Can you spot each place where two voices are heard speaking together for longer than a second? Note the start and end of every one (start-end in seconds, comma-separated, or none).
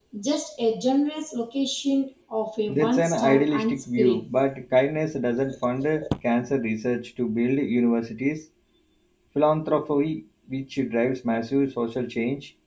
2.7-4.2